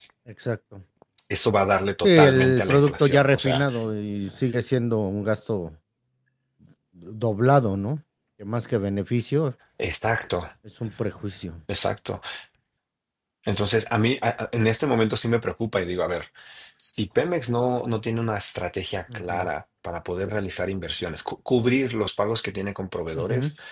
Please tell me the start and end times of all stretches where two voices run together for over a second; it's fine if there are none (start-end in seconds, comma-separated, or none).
2.0-3.7